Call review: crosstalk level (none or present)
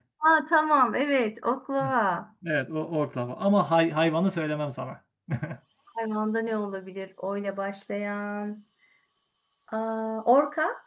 none